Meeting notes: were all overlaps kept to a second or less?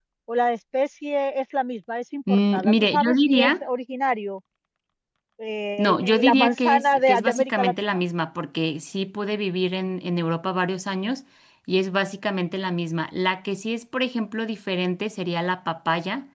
No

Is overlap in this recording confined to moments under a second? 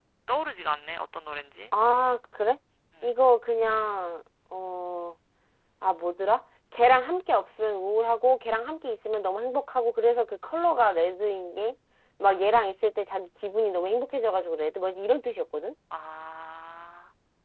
Yes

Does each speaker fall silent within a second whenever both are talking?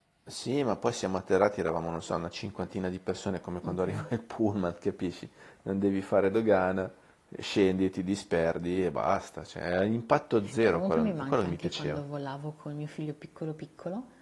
No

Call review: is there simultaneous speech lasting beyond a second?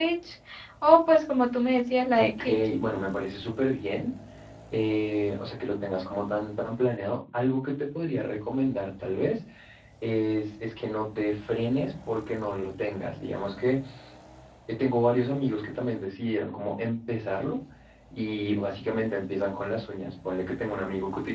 No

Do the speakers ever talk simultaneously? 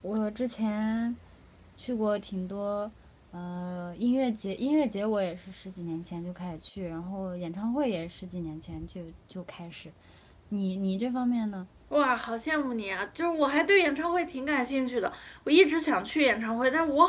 No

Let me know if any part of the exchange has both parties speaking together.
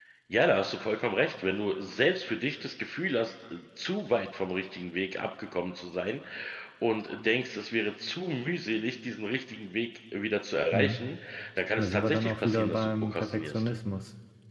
Yes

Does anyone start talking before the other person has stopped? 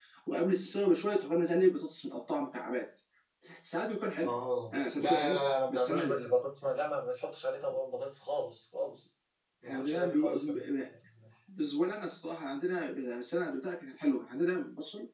Yes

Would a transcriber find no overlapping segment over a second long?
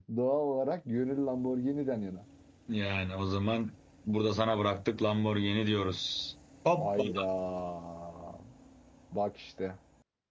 Yes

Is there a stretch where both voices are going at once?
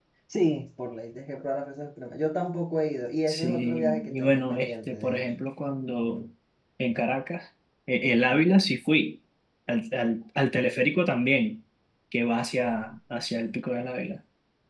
Yes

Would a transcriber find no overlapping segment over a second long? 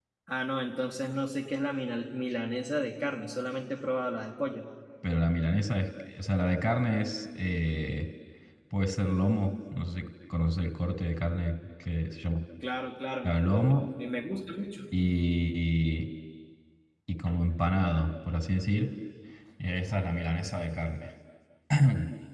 Yes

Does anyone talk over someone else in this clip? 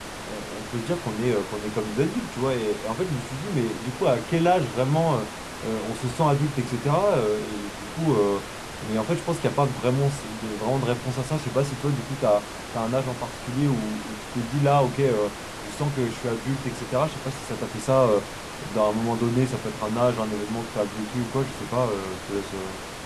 No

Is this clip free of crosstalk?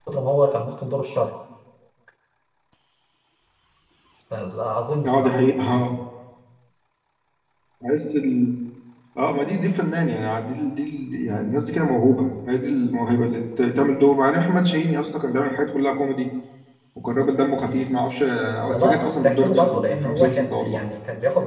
No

